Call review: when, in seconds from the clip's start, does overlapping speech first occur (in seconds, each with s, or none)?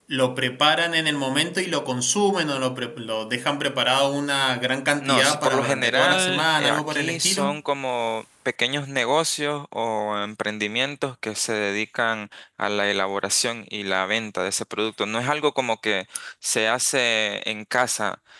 5.0 s